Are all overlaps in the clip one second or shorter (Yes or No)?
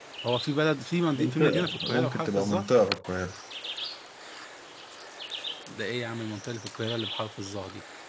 No